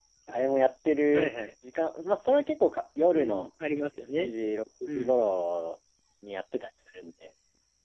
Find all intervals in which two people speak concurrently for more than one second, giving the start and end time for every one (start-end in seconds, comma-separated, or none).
none